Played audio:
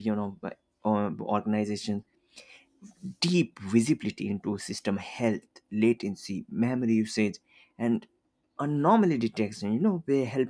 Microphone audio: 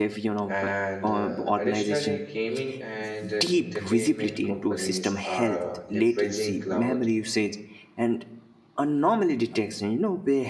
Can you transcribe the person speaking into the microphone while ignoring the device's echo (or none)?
And uh, additionally, gaming and uh, entertainment companies are leveraging cloud